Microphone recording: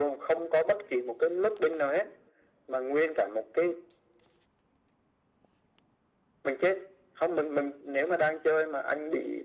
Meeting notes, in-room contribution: none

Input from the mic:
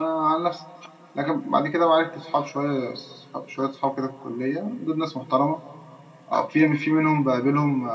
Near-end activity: present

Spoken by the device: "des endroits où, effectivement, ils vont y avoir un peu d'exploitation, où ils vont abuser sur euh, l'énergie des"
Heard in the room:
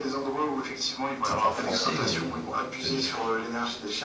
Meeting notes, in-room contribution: present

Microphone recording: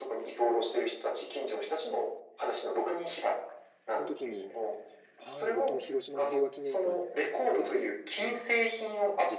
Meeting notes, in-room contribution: present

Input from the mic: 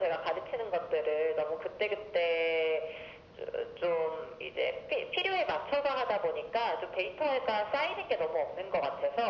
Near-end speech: none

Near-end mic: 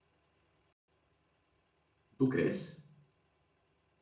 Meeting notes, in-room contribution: present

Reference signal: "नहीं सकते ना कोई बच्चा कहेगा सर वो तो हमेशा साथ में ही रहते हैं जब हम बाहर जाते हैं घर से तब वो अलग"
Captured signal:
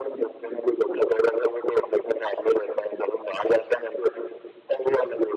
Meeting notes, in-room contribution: none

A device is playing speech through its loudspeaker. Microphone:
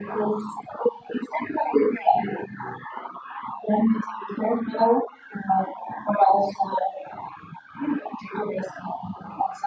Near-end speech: none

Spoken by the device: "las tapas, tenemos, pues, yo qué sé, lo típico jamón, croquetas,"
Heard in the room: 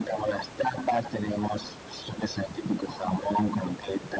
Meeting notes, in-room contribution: none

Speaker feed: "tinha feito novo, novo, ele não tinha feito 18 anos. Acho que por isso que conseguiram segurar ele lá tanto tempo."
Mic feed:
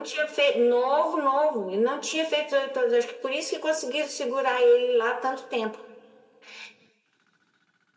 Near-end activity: none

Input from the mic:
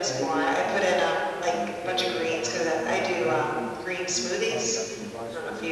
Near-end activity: present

